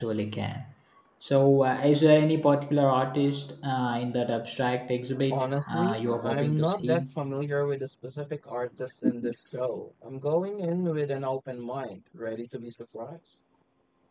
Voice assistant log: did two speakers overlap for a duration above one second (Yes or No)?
Yes